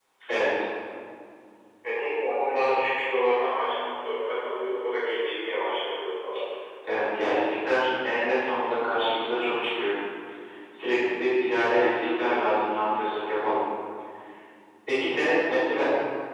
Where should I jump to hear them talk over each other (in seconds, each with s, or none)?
none